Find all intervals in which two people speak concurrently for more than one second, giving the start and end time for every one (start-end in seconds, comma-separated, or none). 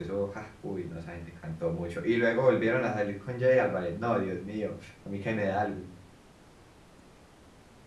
none